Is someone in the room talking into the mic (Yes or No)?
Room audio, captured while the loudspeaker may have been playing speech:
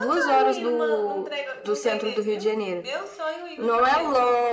Yes